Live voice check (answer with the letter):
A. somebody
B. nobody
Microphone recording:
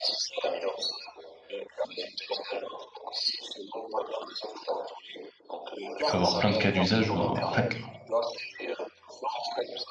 A